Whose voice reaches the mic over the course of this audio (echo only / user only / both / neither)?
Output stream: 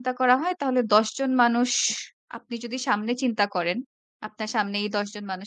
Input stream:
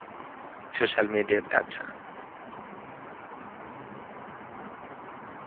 user only